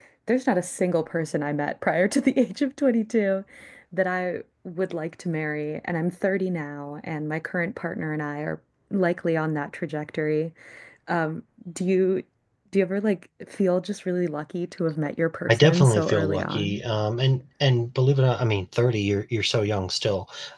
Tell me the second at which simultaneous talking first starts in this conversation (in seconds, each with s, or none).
15.5 s